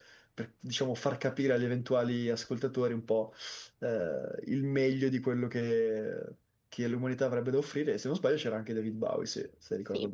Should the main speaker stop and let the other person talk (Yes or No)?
Yes